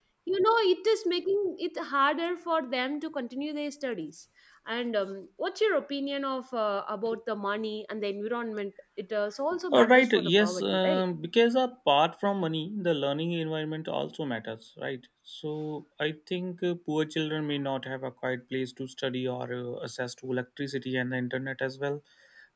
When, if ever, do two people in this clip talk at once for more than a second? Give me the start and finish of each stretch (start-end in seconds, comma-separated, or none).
9.7-11.0